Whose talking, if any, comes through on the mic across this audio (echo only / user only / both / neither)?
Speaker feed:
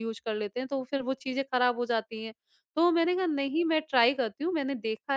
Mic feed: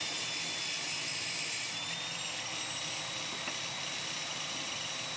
neither